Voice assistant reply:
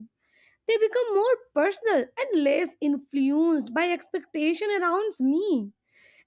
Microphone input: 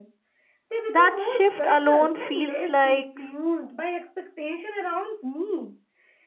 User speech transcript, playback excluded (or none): That shift alone feels like